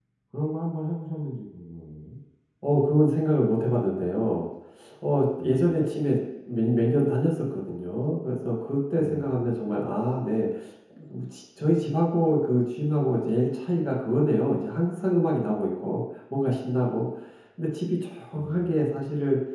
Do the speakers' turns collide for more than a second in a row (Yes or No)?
No